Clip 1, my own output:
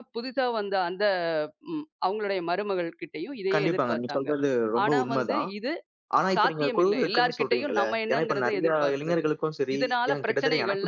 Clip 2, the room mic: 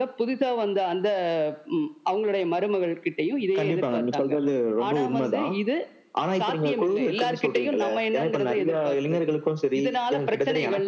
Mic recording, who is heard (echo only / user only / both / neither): echo only